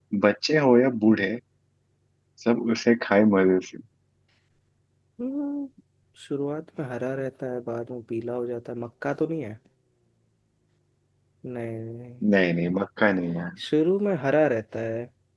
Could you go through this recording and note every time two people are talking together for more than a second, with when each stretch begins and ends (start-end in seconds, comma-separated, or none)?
none